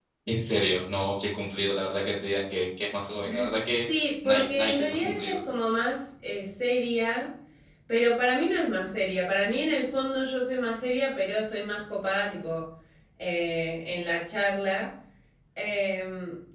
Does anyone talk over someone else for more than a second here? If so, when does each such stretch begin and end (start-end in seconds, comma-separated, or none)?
4.2-5.5